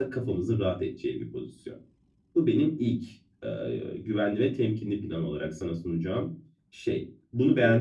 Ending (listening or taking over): taking over